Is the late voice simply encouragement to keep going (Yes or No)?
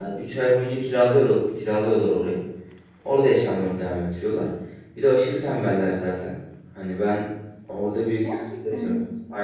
Yes